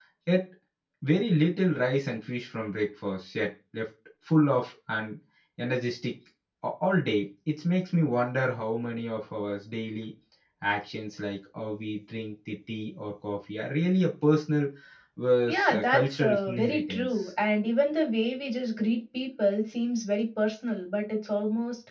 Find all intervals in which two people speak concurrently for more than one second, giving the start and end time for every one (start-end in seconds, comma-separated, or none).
15.5-17.1